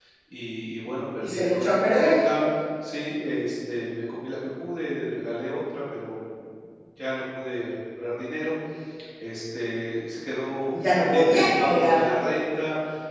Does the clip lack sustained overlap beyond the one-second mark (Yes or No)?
No